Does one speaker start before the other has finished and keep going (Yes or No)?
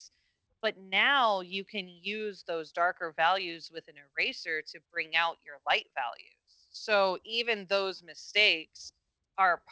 No